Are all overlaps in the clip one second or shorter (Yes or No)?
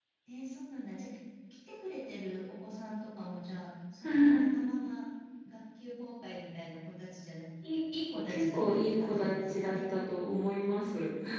No